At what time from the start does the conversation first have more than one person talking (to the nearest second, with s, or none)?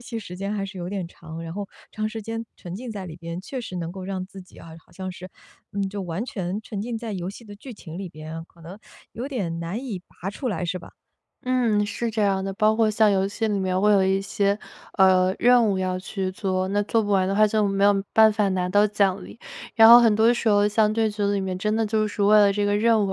none